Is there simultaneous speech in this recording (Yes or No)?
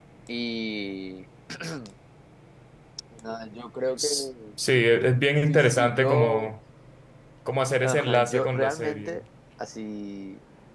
Yes